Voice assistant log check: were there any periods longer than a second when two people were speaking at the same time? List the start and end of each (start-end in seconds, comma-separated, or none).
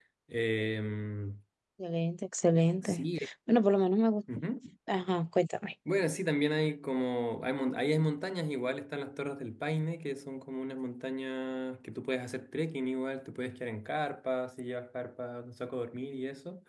none